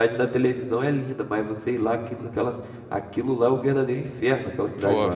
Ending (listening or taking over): taking over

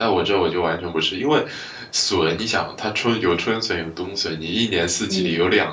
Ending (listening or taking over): listening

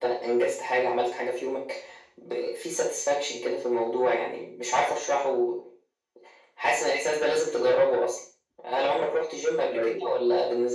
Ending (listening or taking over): listening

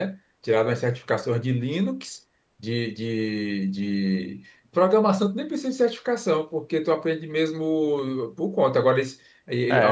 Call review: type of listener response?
taking over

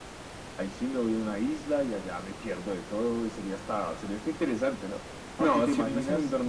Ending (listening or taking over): taking over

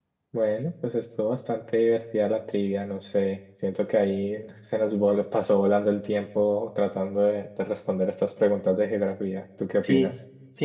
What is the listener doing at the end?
taking over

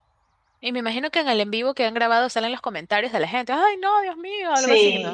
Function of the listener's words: taking over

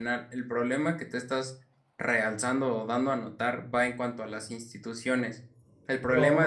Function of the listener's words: taking over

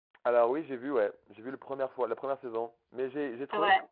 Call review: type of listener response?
listening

